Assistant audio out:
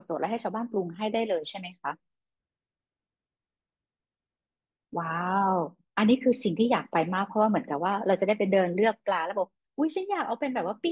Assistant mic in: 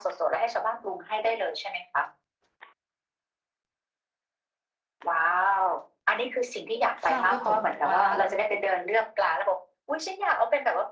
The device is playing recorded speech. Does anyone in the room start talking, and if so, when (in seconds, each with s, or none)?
7.0 s